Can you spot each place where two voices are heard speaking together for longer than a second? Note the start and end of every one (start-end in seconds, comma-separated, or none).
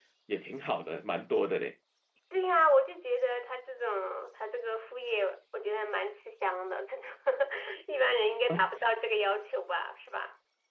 none